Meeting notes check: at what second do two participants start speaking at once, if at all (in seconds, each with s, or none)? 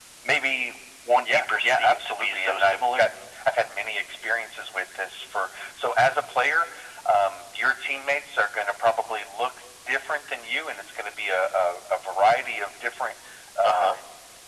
1.2 s